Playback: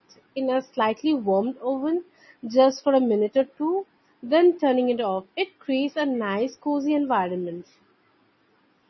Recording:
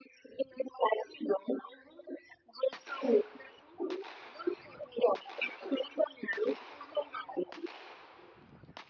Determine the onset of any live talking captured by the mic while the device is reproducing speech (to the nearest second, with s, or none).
none